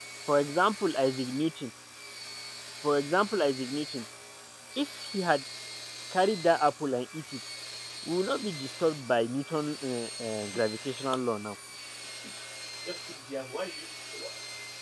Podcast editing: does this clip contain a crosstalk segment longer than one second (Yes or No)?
No